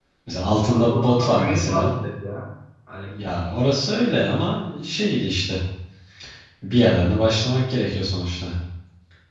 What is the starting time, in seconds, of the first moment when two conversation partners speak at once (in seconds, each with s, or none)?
0.7 s